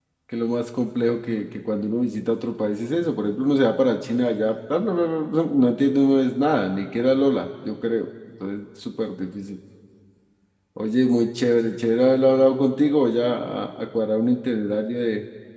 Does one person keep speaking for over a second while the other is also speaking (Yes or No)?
No